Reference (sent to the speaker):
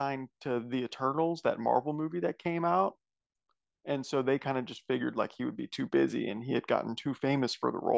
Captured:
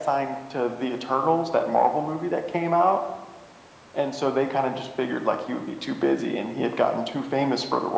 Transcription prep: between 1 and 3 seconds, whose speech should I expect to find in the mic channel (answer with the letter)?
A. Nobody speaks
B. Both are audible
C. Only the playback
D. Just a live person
C